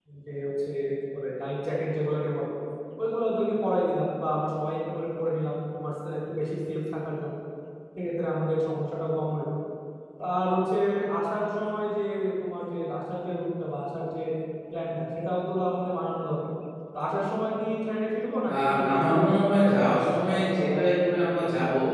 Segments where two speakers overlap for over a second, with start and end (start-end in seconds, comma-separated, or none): 18.5-21.1